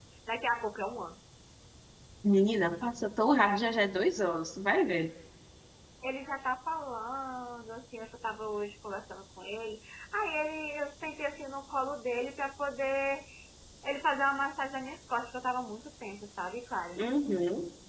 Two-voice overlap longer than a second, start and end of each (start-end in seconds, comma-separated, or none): none